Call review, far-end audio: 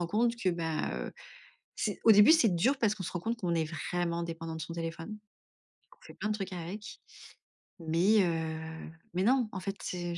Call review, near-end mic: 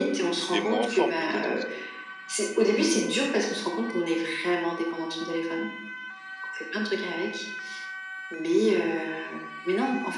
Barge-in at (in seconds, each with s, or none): 0.5 s